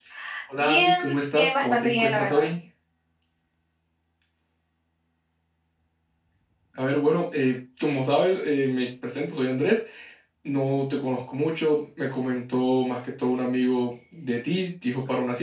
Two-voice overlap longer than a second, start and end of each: 0.6-2.5

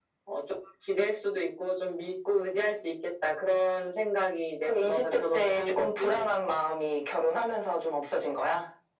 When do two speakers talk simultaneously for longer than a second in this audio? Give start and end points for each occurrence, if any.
4.6-6.3

